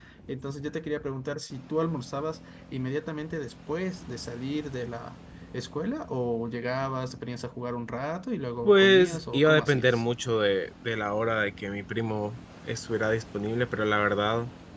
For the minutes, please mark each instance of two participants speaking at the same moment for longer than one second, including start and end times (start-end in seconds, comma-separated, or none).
8.6-10.0